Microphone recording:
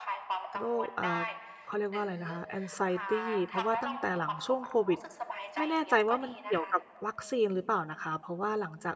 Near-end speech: present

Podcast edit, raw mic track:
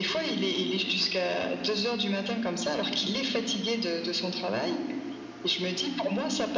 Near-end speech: none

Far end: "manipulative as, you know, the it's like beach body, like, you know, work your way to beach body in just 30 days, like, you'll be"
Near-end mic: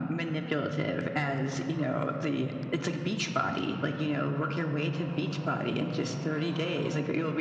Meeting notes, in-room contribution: none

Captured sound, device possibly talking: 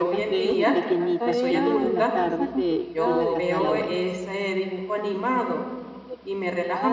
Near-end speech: present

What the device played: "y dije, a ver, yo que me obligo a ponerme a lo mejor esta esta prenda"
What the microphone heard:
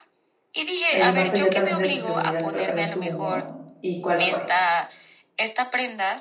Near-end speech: present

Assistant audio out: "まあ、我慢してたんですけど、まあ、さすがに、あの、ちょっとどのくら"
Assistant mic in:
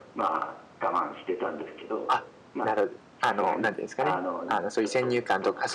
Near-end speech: present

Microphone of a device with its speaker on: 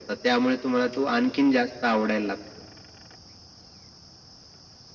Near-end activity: none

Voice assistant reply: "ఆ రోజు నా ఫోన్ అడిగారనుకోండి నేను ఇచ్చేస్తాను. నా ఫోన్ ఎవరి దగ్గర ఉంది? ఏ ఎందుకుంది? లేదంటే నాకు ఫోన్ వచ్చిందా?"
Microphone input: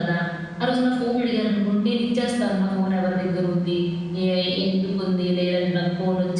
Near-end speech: none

